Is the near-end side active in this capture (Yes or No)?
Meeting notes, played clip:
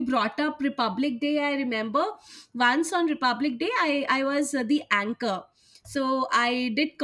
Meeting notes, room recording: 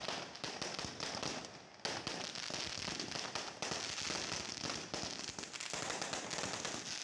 No